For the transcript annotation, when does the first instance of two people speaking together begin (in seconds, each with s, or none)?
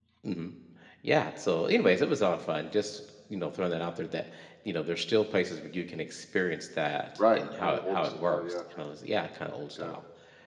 7.2 s